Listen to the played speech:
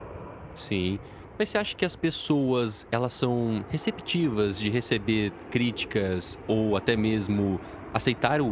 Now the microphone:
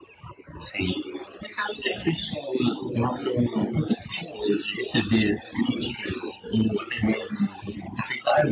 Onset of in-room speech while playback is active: none

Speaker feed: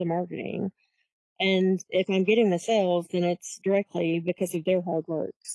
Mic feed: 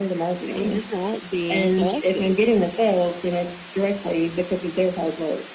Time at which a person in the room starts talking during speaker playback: 0.6 s

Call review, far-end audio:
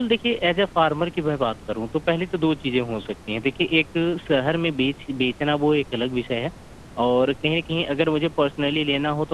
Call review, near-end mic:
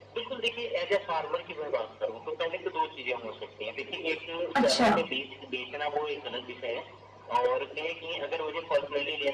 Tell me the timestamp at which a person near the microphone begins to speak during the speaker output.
4.5 s

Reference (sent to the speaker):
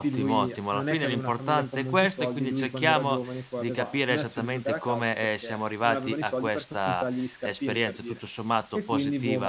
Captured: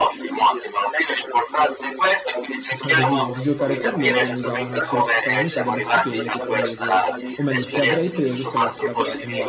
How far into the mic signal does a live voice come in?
2.7 s

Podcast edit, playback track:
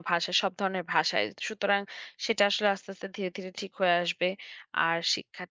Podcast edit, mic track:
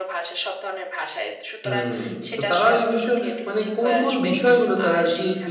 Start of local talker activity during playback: 1.6 s

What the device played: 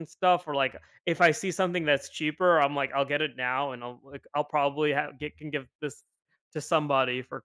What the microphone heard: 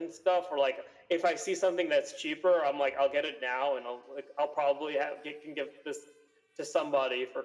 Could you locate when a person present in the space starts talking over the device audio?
none

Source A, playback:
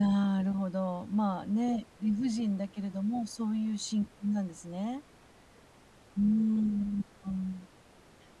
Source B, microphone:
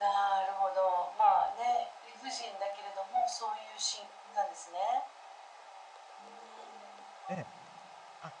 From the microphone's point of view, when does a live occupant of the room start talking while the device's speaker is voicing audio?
7.3 s

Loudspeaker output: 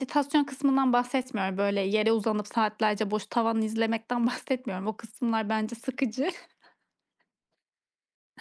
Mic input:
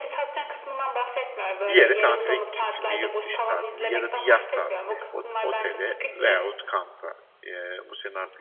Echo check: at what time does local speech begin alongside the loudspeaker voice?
1.7 s

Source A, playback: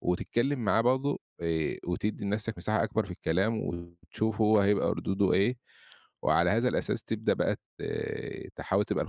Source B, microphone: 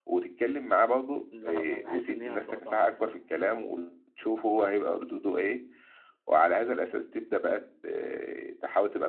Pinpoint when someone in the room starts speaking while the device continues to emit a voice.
1.3 s

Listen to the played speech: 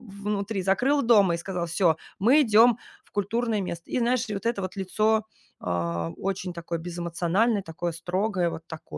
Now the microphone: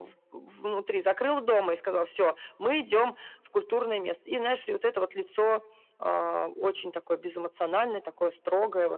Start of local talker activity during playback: none

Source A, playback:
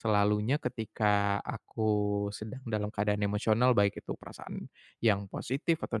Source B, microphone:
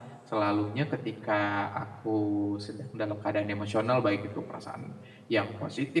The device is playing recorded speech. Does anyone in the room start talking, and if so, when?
none

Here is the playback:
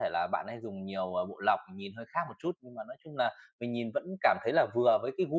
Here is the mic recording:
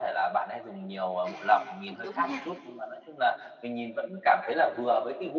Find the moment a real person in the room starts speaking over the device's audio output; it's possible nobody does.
1.2 s

